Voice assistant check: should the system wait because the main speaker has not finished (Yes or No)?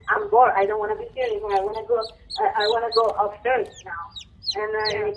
Yes